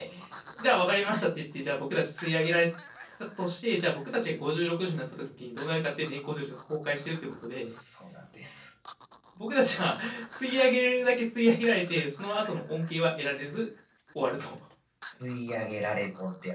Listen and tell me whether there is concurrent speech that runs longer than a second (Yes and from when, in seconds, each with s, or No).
No